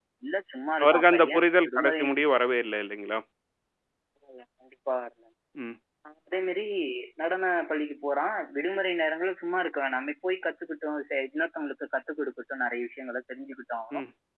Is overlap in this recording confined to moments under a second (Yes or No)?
No